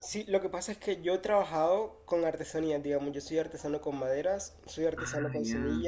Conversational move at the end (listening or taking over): listening